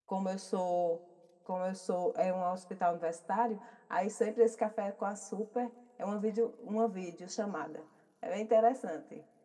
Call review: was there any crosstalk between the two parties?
No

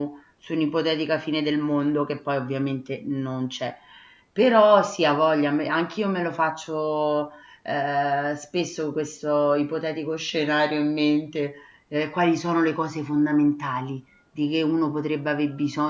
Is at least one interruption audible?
No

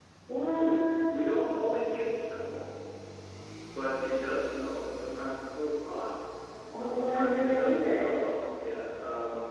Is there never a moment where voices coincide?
No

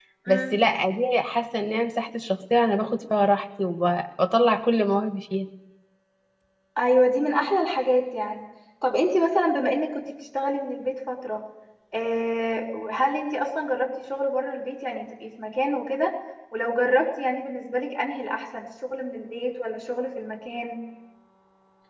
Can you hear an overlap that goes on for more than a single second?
No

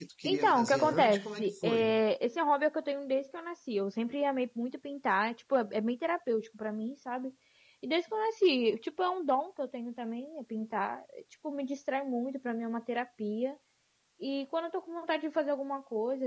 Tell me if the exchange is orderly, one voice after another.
No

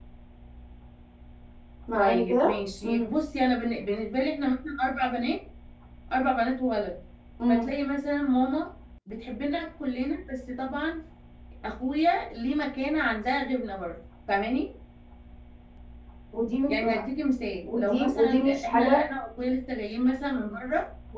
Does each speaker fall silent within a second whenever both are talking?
No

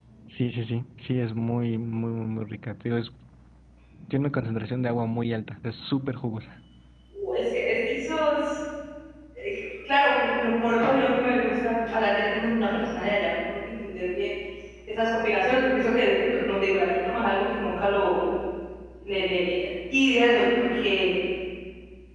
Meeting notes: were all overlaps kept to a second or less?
Yes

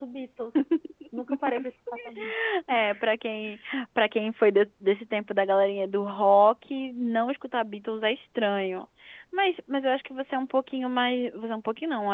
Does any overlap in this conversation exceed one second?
No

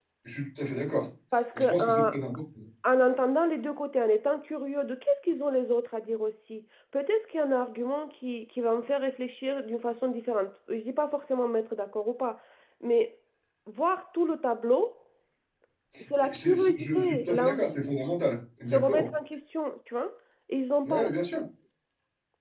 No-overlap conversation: No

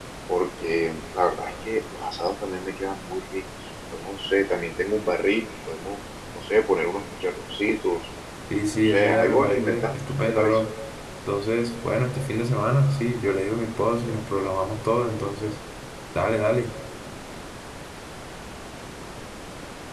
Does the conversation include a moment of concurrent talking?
Yes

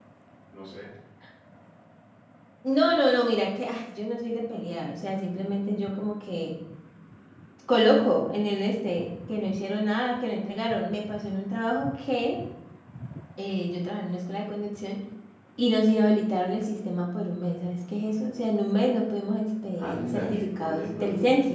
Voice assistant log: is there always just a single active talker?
No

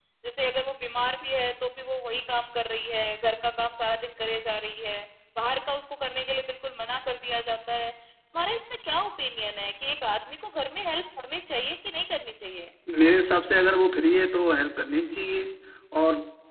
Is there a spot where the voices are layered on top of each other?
No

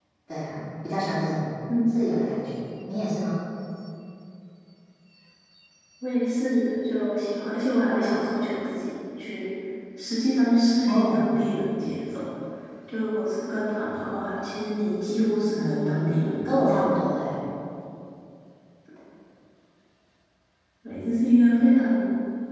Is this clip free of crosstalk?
No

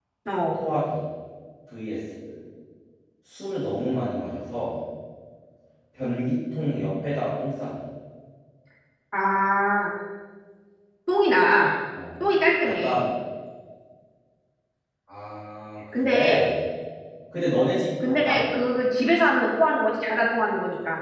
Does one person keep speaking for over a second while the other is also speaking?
No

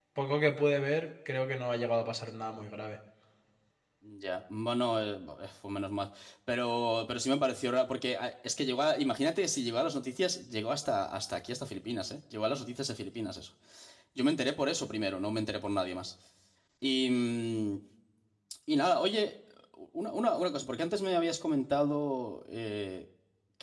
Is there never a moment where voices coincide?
Yes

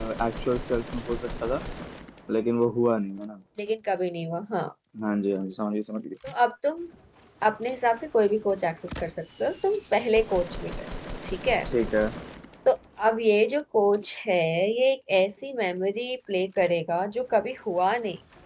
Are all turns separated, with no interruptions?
Yes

